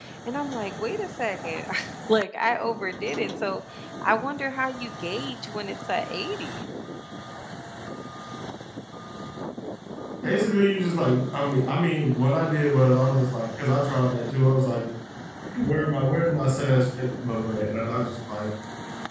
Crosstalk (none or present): none